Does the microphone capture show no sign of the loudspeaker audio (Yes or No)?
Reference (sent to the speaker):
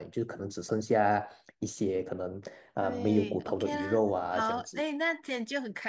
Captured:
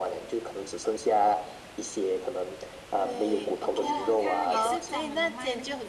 No